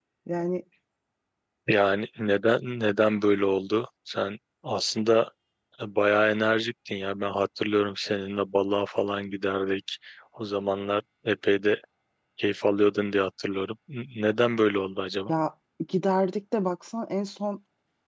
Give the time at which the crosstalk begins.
none

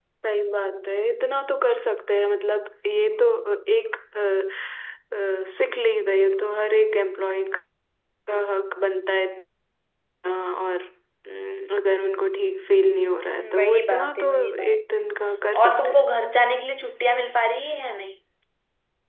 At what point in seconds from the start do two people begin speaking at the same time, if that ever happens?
14 s

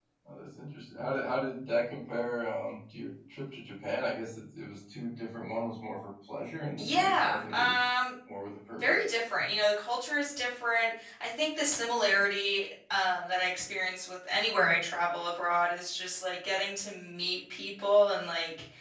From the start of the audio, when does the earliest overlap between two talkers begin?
7 s

